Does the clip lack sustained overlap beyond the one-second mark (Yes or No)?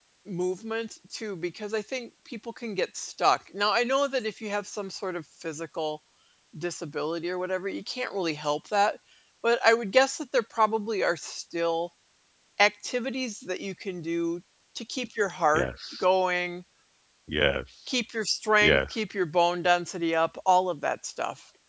Yes